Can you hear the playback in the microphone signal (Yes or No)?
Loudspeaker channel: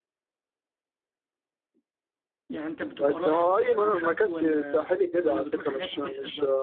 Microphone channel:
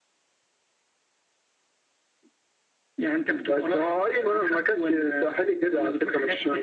Yes